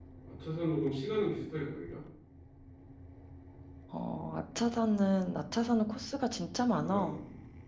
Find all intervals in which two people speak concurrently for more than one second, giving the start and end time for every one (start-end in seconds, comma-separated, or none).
none